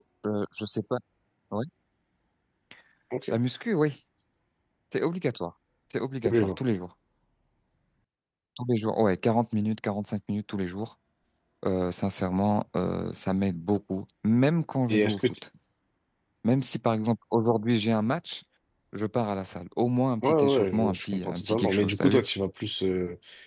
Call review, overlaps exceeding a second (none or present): present